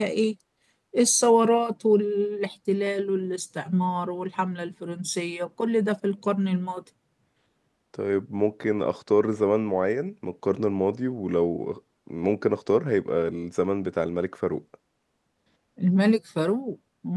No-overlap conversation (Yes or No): Yes